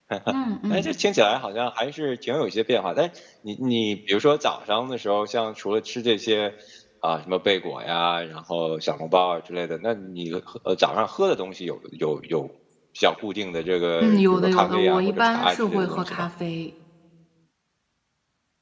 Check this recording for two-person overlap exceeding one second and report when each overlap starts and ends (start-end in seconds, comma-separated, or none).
14.0-16.2